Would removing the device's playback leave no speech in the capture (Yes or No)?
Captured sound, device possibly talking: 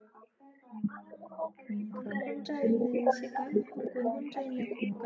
No